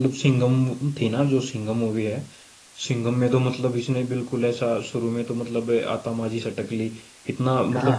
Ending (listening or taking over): listening